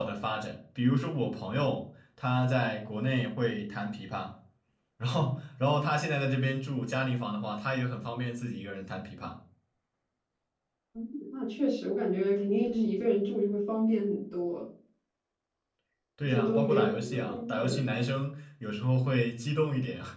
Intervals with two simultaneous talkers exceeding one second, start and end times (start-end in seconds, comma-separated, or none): 16.2-17.8